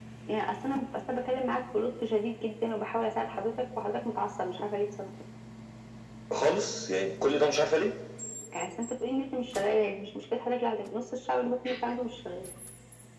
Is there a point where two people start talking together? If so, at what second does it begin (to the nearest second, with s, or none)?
none